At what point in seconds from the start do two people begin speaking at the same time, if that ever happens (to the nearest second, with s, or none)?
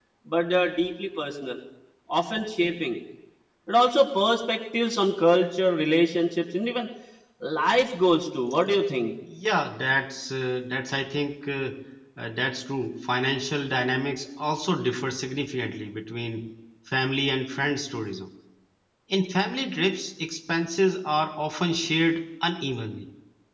none